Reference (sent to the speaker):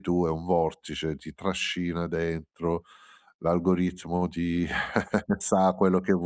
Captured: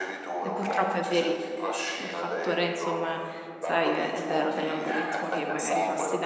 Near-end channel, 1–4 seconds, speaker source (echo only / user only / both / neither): both